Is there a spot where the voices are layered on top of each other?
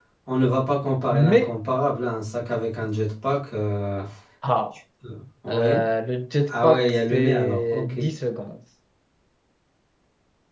Yes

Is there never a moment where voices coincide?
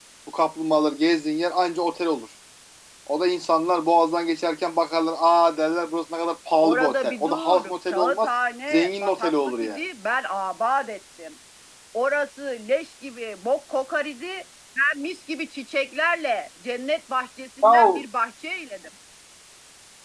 No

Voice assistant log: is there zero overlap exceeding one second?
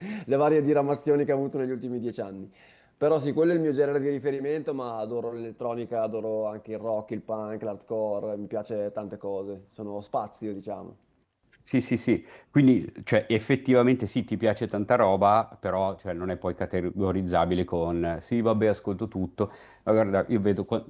Yes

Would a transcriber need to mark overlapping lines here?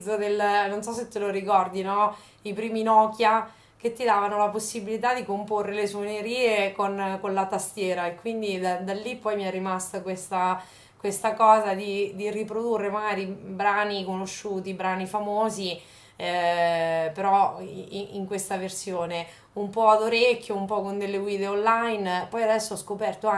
No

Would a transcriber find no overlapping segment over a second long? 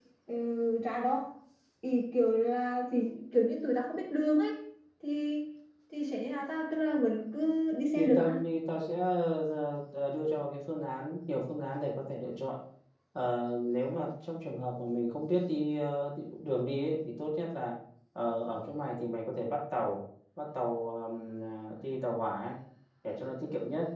Yes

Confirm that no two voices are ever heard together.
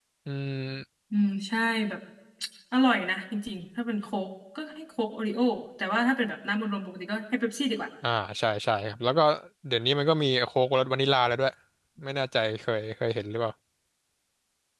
Yes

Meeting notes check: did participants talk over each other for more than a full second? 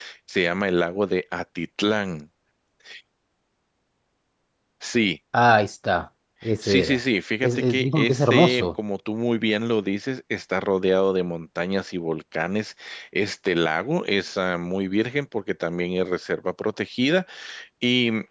Yes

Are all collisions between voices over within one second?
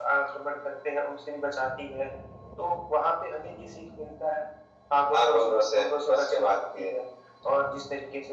No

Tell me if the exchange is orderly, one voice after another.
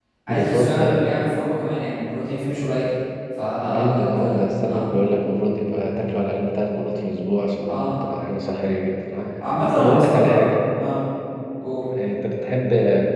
No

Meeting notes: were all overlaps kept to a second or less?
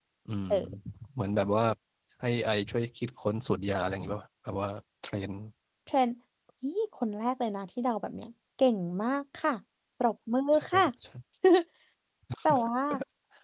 Yes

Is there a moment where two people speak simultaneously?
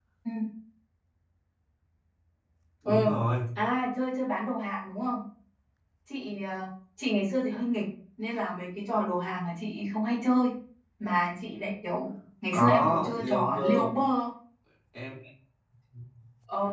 Yes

